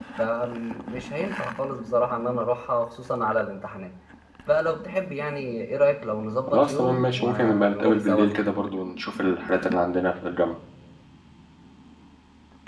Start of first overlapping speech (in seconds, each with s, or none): 6.5 s